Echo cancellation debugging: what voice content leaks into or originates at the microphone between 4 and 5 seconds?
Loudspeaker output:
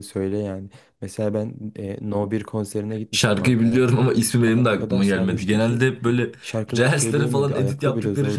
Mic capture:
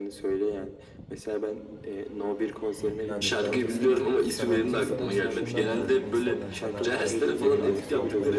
both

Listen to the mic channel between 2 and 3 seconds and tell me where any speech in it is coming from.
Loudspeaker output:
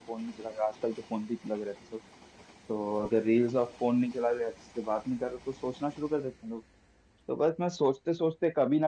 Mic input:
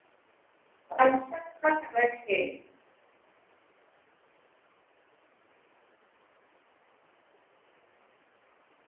user only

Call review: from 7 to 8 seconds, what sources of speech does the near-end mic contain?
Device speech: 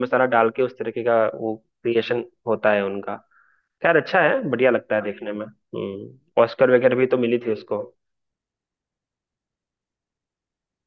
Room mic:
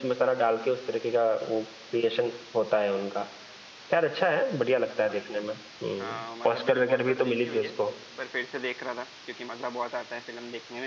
both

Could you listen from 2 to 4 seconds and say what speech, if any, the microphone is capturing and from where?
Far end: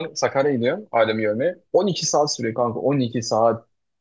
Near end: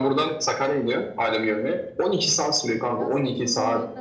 both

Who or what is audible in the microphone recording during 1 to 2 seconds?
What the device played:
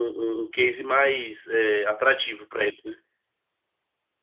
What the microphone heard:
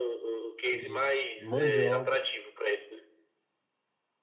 both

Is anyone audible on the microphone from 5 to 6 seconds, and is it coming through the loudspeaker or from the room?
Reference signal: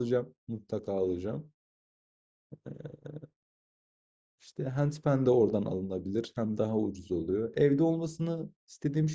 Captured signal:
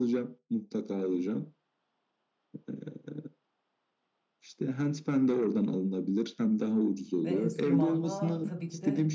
echo only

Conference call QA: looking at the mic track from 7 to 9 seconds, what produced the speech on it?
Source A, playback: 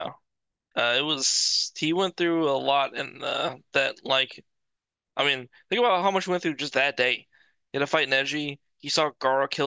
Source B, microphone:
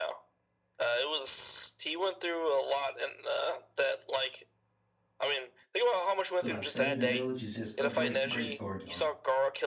both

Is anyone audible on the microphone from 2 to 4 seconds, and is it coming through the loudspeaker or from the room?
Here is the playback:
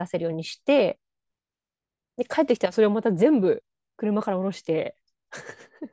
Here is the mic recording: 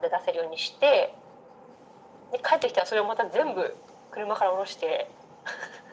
echo only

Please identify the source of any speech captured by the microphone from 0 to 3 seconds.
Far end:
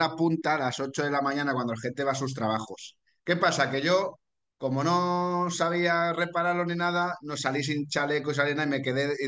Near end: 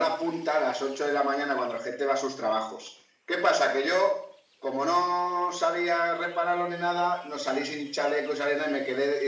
echo only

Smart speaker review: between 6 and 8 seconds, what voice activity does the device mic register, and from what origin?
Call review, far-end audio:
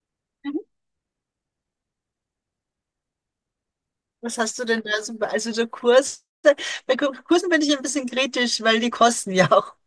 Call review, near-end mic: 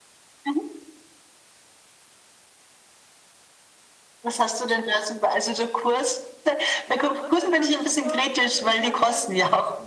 both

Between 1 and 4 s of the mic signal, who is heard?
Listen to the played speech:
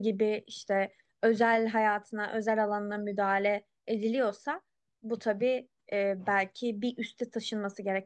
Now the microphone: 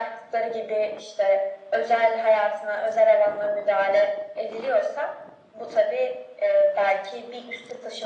echo only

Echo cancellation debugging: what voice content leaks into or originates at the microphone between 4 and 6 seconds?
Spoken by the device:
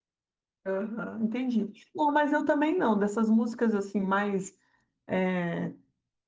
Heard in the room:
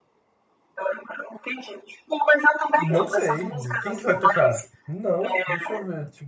both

